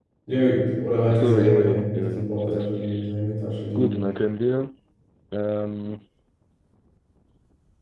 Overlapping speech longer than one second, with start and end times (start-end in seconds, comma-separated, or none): 1.1-2.7